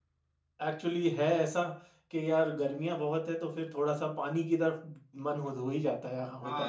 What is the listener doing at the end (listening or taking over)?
taking over